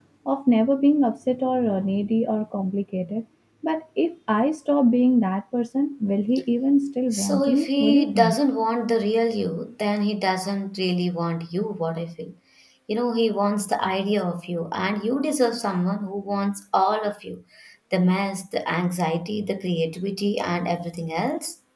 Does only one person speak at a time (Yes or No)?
No